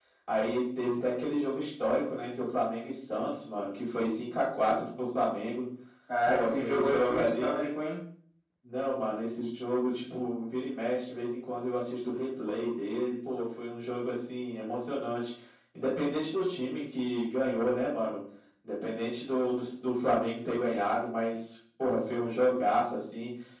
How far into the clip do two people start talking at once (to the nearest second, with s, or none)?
6 s